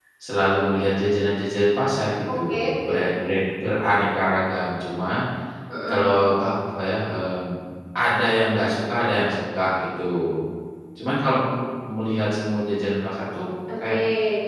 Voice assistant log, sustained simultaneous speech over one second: none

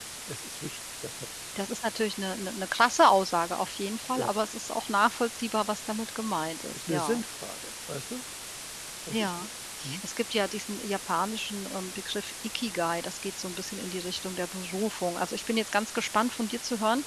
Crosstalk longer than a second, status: none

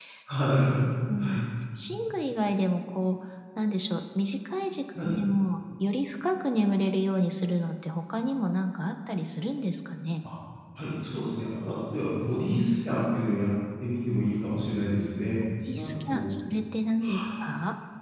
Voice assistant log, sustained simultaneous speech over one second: none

